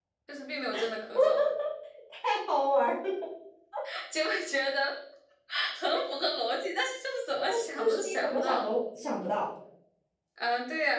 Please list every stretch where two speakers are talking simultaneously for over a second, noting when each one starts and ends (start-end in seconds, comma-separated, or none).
7.4-8.6